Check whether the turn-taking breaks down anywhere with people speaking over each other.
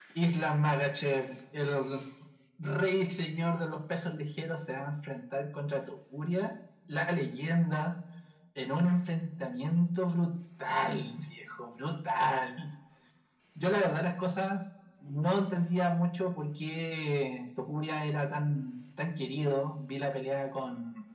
No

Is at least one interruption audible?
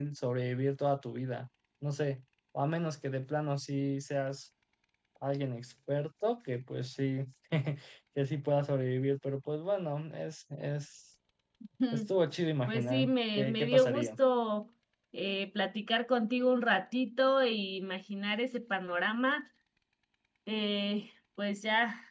Yes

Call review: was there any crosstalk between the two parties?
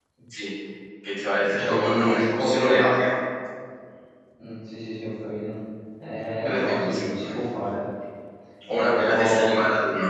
Yes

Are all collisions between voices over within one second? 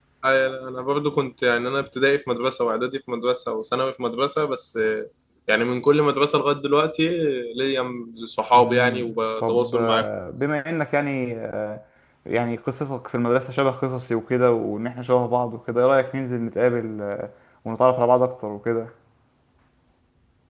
No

